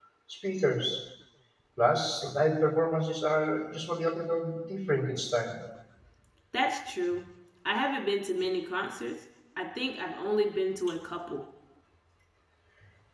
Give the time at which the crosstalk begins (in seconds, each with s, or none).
none